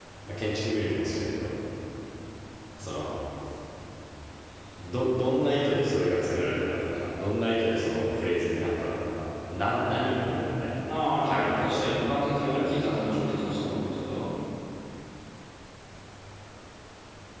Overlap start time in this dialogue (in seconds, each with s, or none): 11.2 s